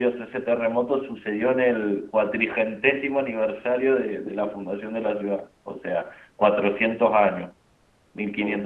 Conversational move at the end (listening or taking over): listening